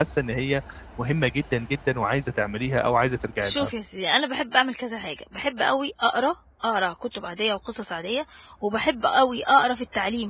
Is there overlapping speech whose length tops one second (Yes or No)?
No